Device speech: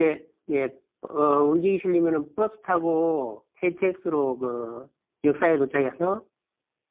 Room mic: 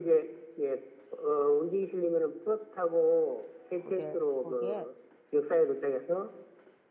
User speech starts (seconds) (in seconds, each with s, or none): 3.7 s